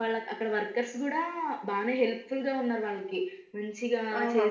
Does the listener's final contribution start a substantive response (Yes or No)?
No